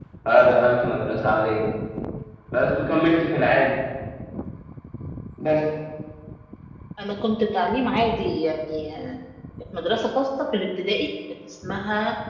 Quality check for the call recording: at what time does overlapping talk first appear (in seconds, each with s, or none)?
none